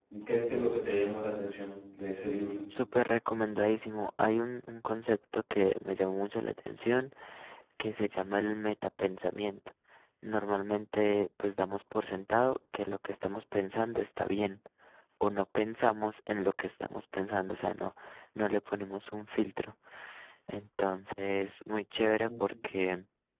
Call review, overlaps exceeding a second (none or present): none